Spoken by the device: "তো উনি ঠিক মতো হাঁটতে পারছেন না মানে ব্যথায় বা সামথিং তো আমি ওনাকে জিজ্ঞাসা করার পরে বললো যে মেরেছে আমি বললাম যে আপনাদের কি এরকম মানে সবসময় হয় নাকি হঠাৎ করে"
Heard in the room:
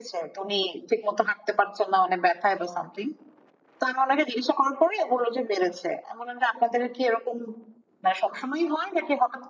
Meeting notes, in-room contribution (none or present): none